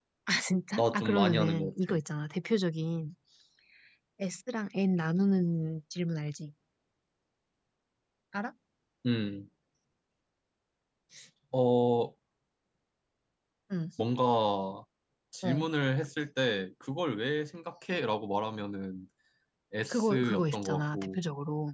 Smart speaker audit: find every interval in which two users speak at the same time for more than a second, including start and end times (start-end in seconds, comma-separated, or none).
0.8-2.0, 19.9-21.2